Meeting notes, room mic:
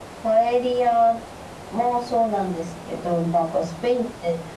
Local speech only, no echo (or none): none